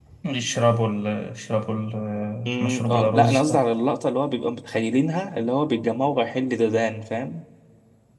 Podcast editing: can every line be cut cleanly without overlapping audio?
No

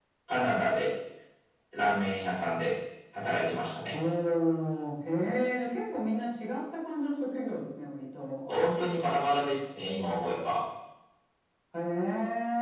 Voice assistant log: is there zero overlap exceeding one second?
Yes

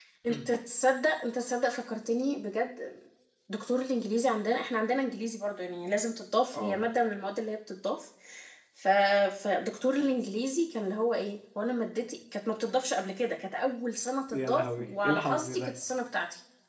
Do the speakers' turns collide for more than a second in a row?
Yes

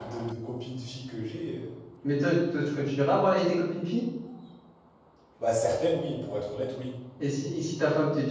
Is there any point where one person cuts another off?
No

